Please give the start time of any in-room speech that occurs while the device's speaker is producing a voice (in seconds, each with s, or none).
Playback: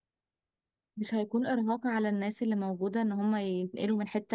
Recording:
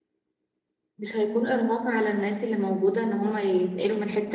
none